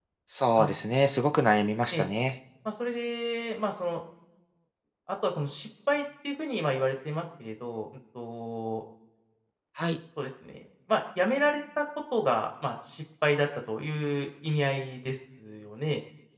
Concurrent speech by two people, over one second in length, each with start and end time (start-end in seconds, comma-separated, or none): none